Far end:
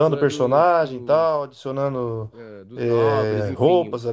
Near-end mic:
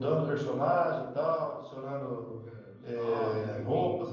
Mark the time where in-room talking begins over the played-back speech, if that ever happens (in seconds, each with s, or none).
none